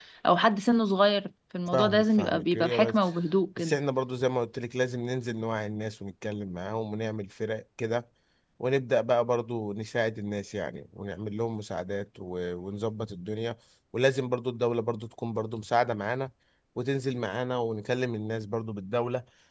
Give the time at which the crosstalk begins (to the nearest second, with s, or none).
2 s